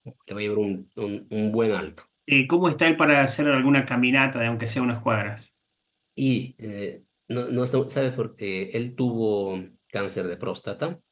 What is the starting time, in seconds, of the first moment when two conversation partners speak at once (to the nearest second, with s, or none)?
none